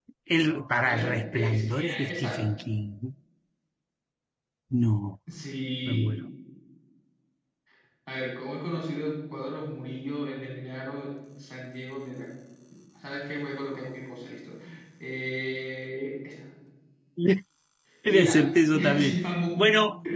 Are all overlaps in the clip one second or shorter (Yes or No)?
No